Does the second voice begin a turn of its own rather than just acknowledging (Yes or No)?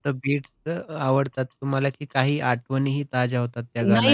Yes